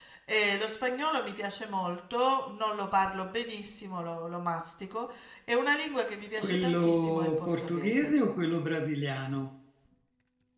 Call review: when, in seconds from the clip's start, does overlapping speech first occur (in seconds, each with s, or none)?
6.4 s